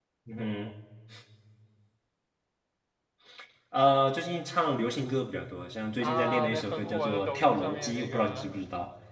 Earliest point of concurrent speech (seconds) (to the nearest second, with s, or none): 6 s